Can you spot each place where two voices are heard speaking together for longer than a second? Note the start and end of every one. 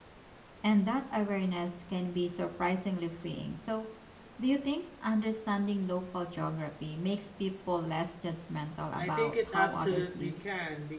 9.0-10.4

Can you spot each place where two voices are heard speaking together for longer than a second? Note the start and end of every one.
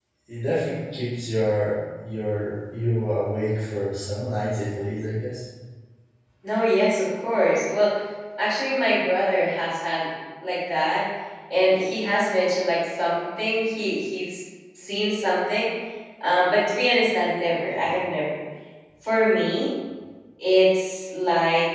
none

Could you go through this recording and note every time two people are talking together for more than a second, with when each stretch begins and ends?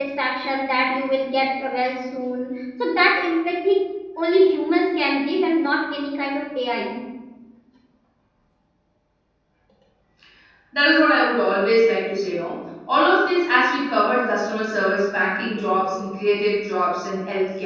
none

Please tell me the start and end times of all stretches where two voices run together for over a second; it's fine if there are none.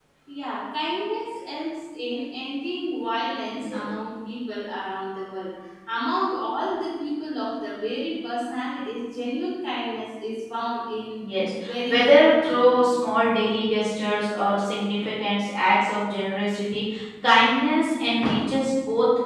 11.6-12.8

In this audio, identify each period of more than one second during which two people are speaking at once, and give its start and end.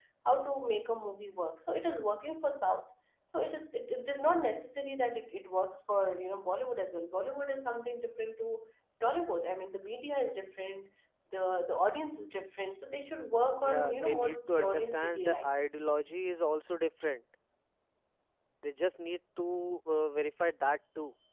13.6-15.6

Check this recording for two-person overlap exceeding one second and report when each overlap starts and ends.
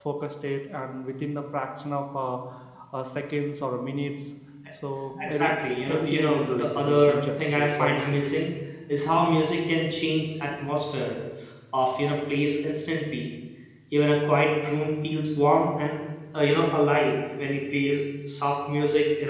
5.9-8.2

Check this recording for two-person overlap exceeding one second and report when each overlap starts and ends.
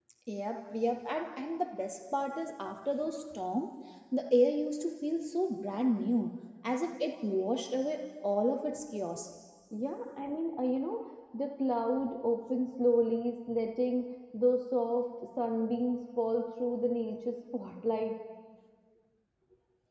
none

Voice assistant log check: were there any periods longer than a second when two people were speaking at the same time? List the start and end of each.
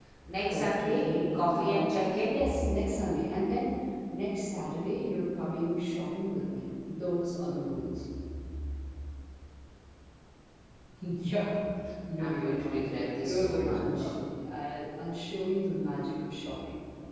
0.5-2.4, 12.2-14.1

